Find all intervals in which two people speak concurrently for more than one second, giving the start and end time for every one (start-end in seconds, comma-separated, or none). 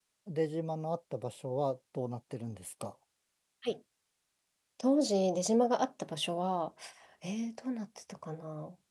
none